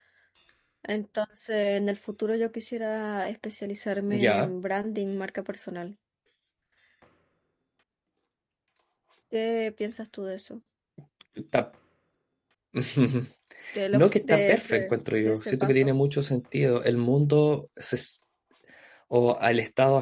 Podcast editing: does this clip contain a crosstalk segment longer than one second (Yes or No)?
Yes